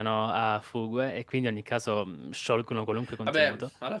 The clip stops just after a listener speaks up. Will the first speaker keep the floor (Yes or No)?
No